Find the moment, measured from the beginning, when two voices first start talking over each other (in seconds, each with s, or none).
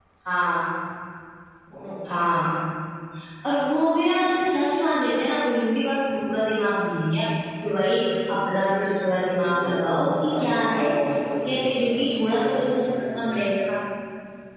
9.5 s